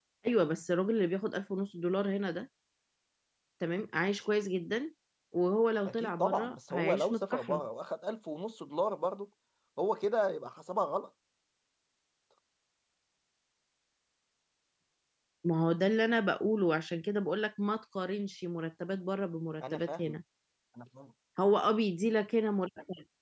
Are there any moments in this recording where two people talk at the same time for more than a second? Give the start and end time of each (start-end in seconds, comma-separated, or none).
5.9-7.6